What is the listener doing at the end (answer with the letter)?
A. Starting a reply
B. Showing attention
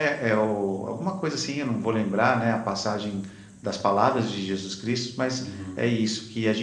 B